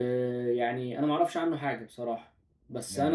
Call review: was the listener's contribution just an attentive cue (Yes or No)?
Yes